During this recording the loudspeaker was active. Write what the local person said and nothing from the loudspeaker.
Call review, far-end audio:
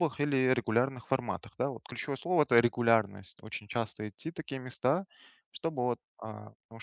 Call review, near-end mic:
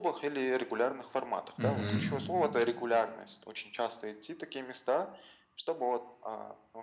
Угу,

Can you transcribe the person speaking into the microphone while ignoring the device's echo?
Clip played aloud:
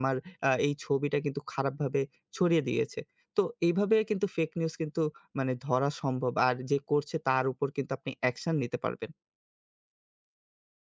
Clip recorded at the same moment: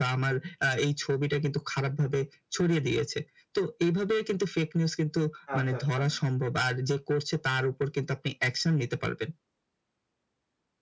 আচ্ছা, আচ্ছা।

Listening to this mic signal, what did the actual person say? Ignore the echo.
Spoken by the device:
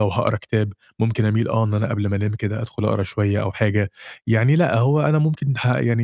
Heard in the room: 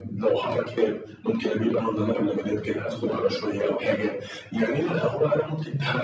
none

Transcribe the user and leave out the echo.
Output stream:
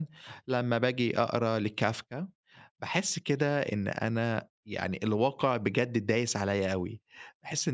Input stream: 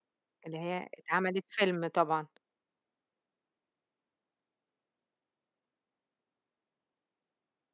اللي هي اتعملت فيلم طبعًا،

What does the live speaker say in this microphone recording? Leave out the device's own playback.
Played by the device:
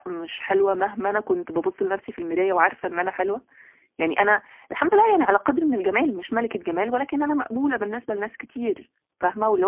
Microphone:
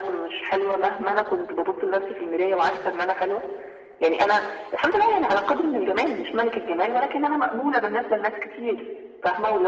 none

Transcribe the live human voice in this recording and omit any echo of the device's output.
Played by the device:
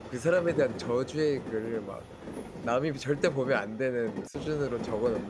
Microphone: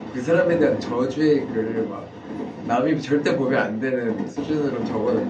none

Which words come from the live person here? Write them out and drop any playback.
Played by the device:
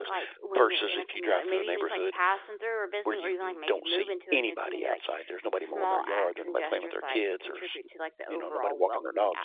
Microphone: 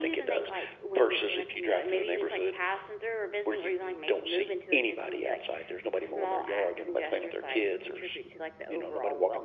none

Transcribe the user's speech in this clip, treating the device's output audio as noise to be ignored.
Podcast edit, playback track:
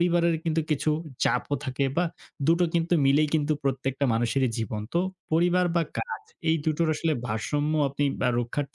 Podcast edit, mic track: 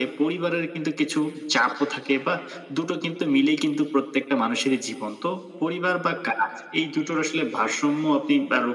none

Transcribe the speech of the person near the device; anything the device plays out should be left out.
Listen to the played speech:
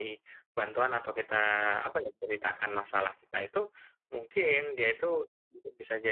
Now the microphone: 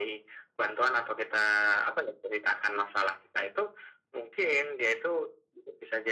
none

